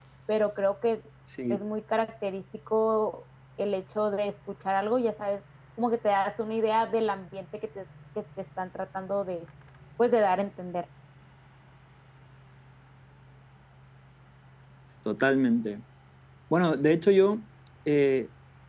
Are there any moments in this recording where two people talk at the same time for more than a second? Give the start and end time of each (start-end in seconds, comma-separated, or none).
none